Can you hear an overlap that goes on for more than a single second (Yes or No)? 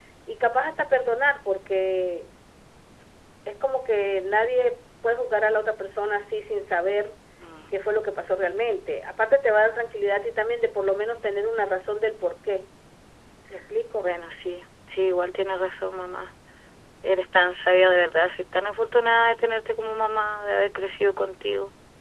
No